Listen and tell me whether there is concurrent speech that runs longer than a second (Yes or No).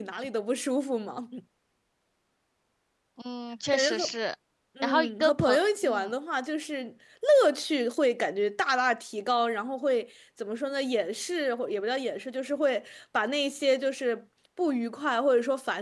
Yes